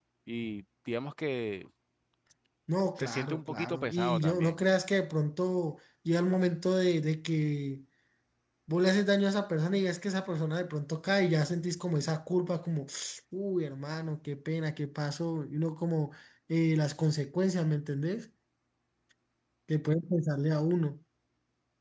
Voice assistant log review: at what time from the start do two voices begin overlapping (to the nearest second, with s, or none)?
3 s